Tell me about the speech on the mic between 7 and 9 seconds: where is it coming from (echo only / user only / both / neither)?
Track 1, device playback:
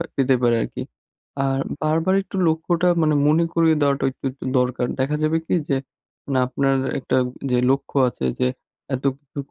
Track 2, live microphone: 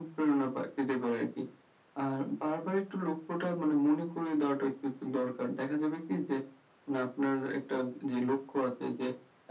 echo only